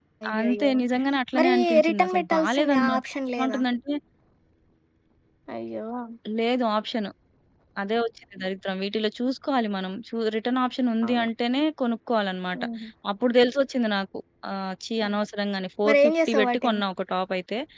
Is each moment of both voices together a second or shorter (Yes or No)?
No